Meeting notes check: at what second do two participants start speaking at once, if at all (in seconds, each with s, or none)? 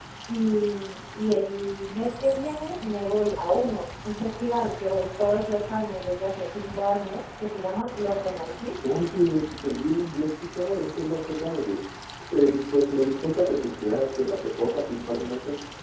none